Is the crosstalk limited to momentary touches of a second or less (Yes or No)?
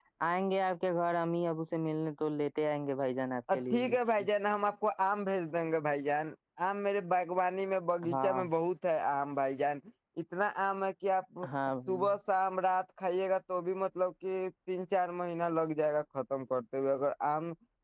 Yes